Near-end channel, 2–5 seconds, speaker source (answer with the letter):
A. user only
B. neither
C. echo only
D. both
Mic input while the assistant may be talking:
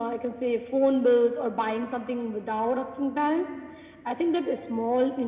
C